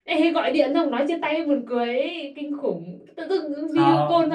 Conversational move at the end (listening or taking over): listening